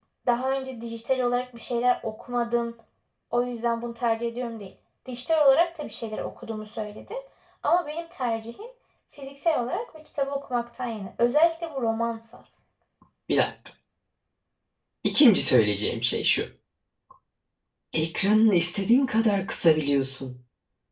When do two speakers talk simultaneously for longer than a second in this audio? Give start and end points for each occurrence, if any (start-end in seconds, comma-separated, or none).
none